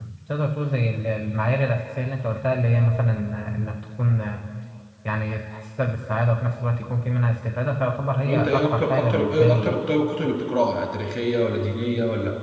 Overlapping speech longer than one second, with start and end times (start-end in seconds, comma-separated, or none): 8.2-9.7